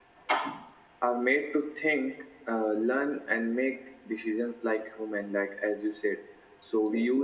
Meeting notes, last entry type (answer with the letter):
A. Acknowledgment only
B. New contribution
A